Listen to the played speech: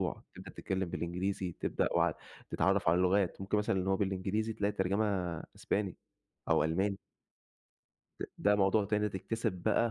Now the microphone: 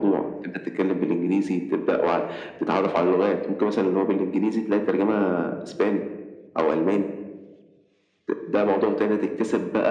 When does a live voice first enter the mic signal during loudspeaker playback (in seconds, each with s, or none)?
none